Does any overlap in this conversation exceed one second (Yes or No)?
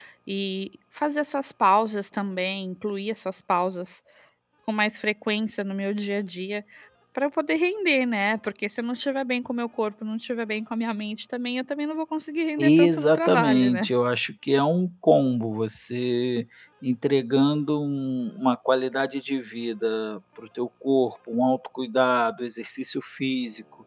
Yes